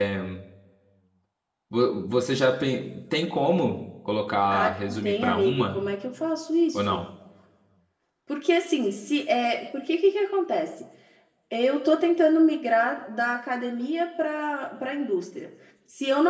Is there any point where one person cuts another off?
Yes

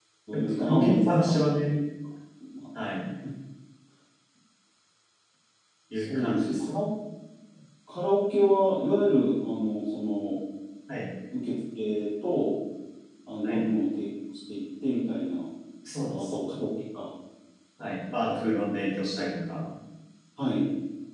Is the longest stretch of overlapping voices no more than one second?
No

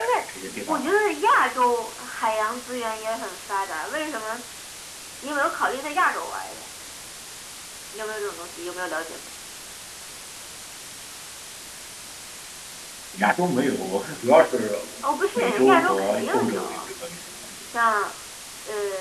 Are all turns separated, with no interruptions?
No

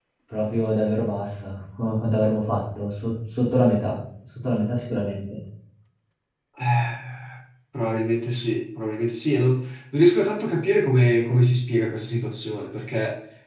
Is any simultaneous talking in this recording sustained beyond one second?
No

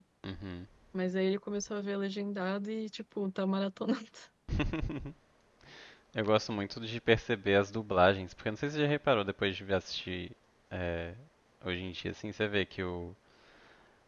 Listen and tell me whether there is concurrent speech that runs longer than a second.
No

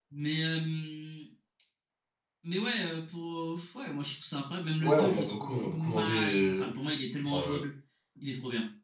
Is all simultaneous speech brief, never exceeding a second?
No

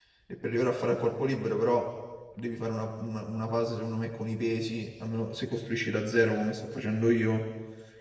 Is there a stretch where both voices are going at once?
No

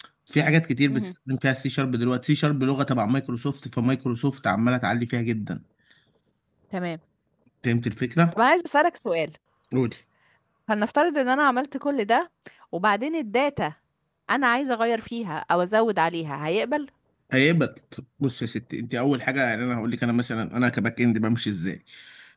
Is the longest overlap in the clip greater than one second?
No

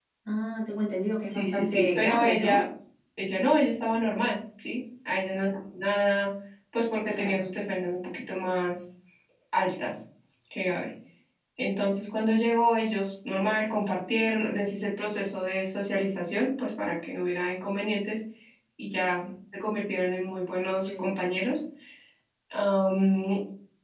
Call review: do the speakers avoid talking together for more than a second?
No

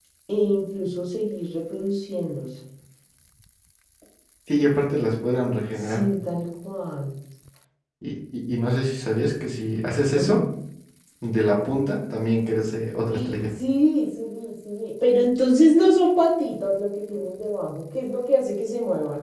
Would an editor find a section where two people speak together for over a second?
No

